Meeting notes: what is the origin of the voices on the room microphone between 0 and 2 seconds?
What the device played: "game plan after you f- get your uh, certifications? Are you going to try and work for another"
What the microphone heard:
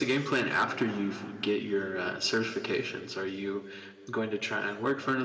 echo only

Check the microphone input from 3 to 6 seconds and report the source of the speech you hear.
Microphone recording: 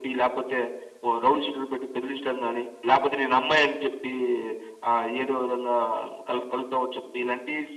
echo only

